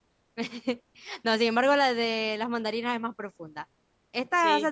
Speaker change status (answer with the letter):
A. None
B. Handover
A